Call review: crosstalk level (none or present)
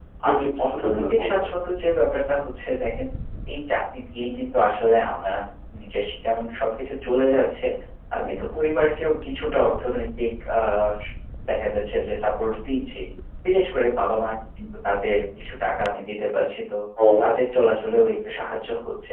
present